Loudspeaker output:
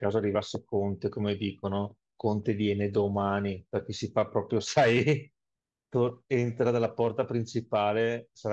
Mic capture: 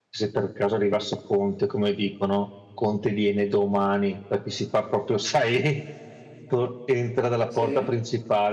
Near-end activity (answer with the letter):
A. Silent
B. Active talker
B